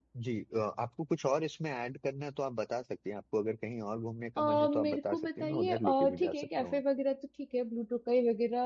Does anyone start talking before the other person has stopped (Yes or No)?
Yes